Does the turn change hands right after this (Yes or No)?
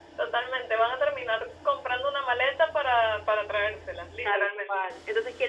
Yes